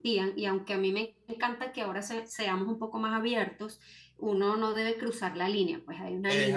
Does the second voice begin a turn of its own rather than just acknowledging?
No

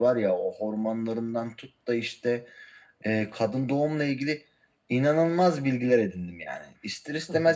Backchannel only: Yes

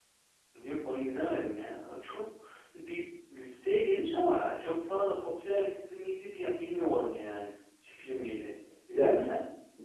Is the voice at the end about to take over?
Yes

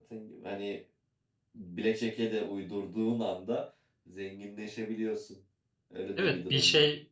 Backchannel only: No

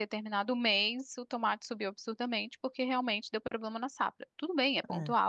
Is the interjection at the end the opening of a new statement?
No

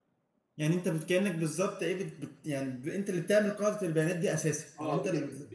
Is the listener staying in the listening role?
No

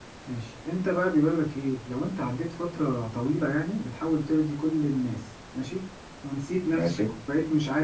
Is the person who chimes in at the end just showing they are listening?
Yes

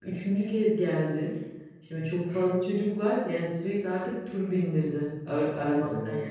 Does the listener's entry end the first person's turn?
No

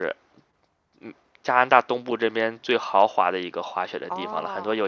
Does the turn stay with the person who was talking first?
Yes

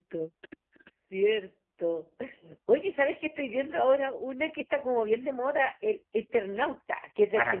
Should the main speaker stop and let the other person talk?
Yes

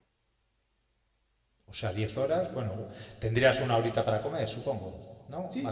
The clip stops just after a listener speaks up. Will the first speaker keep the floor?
No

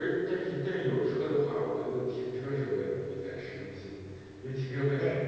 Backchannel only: No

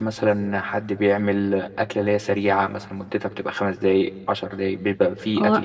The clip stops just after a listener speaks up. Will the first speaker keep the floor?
No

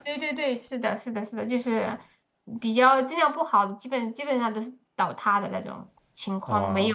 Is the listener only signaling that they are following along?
Yes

